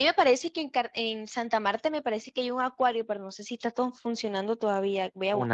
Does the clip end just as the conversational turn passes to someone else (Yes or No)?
Yes